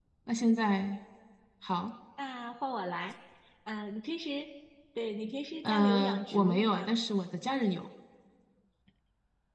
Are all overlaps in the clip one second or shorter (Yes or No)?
No